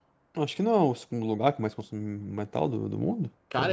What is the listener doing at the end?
taking over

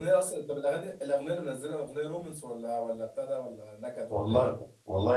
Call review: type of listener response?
taking over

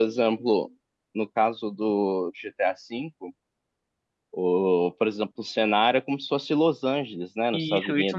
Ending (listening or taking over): taking over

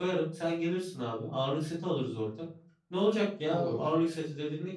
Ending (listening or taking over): listening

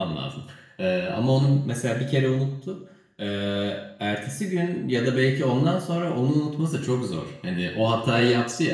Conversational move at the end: listening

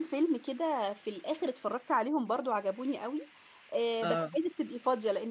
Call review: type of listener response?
listening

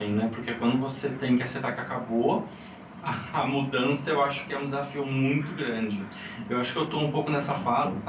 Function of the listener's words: listening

